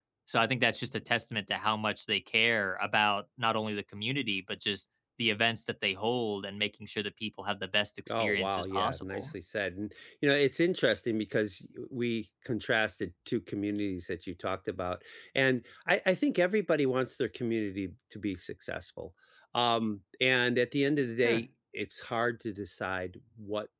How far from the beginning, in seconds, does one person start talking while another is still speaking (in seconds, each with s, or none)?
8.1 s